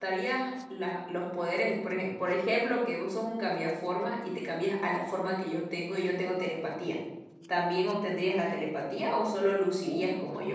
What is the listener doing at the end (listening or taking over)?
taking over